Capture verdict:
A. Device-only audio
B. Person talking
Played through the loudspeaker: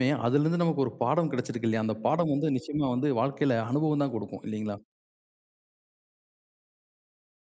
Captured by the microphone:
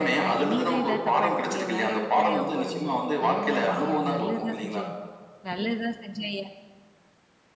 B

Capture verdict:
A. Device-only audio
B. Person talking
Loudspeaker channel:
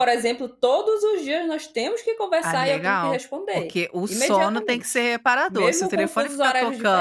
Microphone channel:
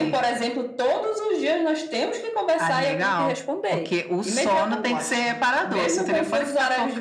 B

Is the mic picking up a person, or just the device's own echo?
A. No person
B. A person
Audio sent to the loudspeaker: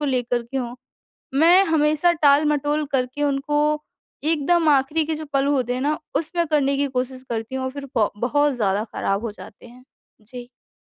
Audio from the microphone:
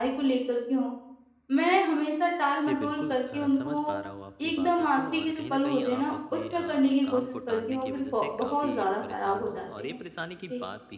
B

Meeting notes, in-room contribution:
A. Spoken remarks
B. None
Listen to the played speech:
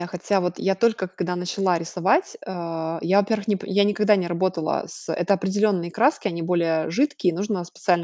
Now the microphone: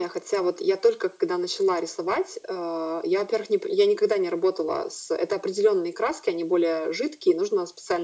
B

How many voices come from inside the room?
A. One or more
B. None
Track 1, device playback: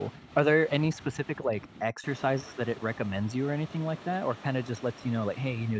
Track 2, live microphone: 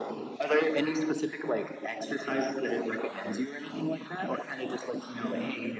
B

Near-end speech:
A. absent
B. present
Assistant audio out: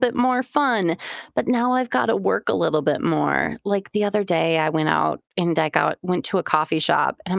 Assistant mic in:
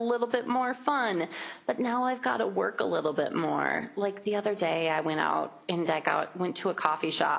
A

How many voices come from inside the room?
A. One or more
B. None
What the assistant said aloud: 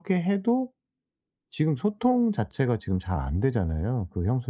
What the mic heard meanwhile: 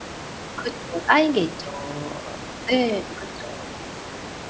A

